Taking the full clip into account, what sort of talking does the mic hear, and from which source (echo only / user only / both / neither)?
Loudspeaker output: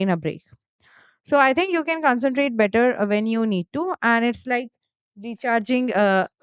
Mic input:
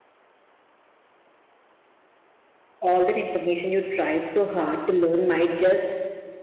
user only